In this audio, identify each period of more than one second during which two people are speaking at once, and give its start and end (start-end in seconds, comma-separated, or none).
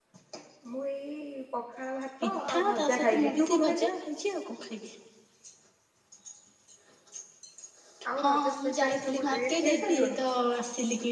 2.2-3.9, 8.2-10.2